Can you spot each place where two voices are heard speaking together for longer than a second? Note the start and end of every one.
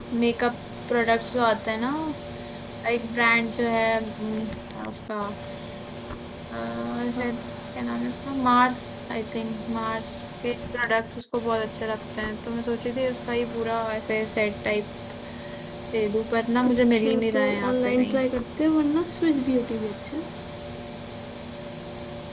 16.6-18.2

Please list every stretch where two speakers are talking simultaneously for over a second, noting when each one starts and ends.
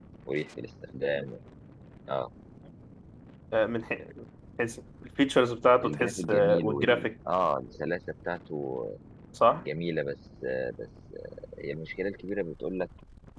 5.8-7.1

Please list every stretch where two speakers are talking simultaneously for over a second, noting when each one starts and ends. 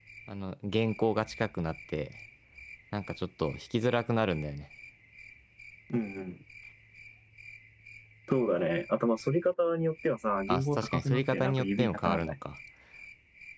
10.5-12.3

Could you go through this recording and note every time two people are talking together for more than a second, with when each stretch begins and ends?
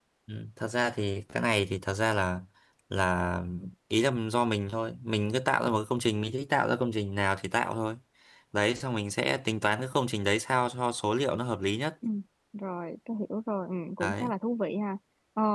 none

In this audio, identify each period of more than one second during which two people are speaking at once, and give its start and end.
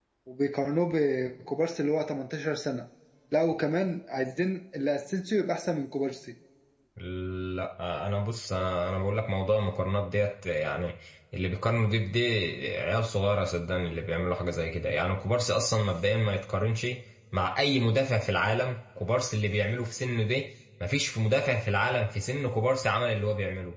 none

